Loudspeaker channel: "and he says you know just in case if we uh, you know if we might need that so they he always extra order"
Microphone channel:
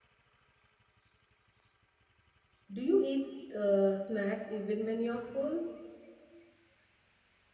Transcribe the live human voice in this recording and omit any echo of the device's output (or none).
Do you eat uh, snacks even when you're full?